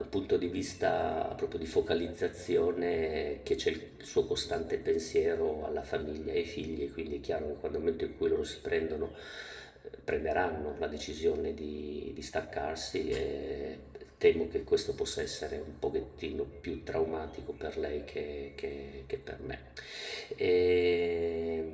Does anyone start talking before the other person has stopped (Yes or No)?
No